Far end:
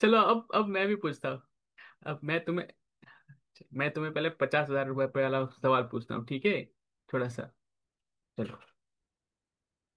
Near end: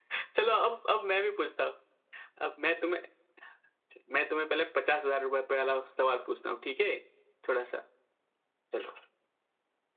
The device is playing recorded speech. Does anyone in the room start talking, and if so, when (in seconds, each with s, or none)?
none